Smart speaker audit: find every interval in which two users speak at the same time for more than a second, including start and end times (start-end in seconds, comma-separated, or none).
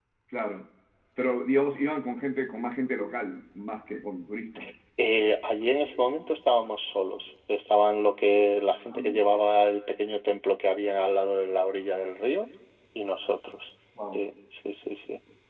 none